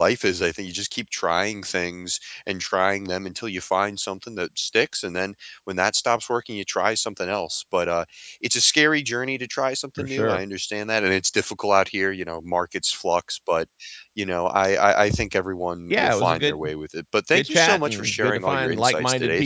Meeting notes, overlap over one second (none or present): present